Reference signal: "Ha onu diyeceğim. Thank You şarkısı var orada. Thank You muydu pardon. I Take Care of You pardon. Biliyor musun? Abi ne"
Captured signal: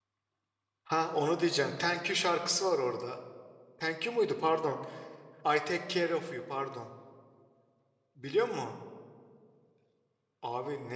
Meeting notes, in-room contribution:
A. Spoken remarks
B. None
B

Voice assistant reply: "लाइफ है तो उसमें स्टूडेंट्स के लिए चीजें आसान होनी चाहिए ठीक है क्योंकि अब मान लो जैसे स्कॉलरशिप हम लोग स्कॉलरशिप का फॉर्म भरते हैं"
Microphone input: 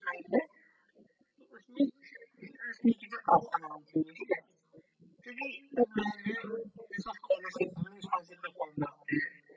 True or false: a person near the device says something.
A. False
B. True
A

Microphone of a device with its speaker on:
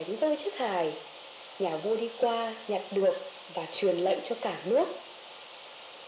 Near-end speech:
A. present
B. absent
B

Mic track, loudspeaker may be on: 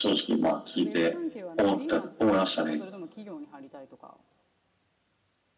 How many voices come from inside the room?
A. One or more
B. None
A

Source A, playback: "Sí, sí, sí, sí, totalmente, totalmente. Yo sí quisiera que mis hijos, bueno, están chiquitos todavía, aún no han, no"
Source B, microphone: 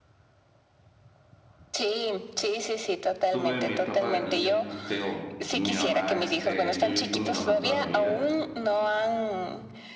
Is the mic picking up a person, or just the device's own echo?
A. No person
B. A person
B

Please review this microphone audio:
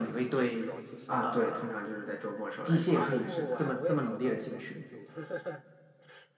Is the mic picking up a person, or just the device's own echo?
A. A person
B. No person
A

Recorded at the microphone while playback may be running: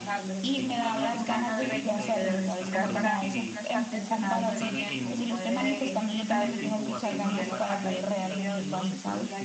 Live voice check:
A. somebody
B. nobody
A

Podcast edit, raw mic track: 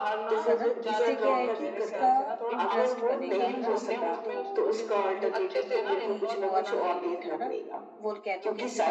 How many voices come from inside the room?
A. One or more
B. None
A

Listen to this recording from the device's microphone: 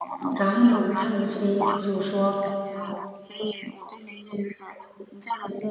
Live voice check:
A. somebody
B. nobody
A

